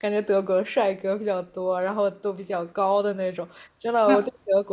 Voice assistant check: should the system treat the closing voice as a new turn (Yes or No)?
No